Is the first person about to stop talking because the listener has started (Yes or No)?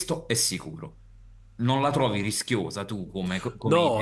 Yes